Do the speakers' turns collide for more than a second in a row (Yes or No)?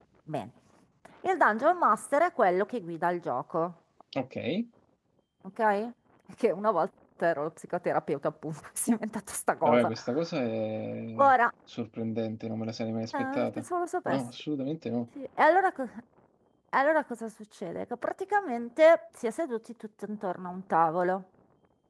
No